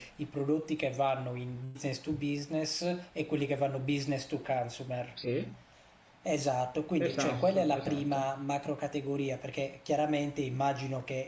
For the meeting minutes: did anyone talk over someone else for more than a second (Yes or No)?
Yes